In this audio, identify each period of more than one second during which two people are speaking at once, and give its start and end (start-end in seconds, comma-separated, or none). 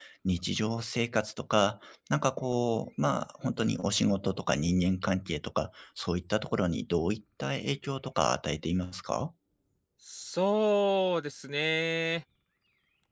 none